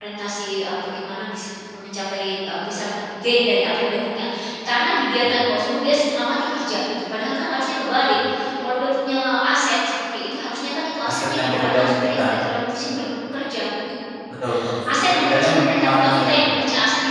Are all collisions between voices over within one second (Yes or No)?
No